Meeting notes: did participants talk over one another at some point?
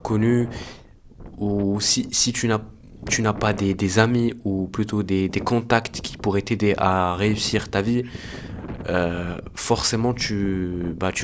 No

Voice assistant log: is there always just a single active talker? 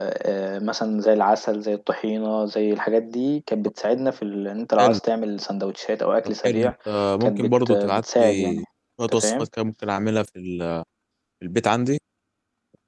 No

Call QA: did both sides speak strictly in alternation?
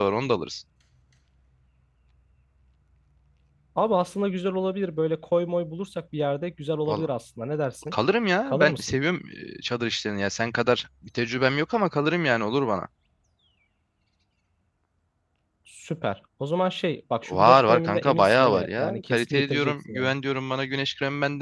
No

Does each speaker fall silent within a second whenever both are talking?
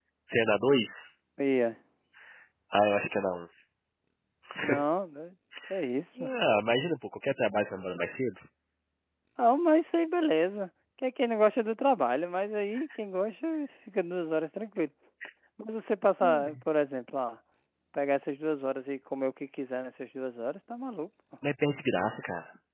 Yes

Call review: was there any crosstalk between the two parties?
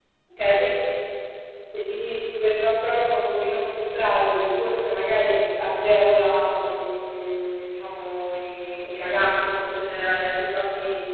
No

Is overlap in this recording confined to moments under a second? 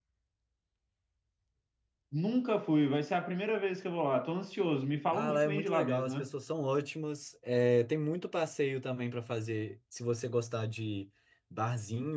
No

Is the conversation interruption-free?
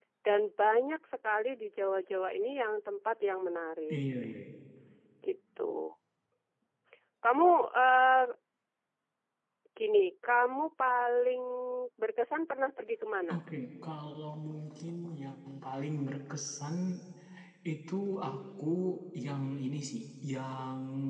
Yes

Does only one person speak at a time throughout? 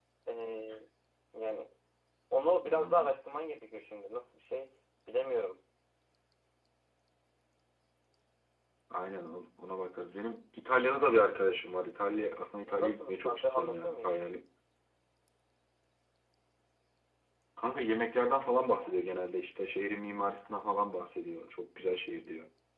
No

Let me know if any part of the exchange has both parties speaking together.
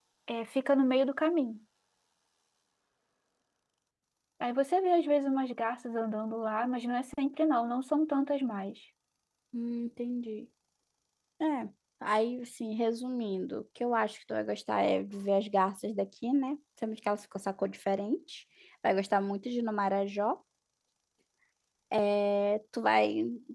No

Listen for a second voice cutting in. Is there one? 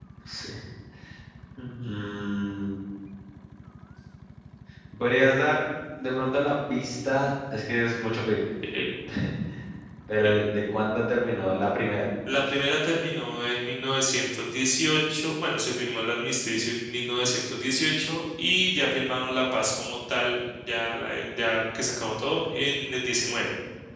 No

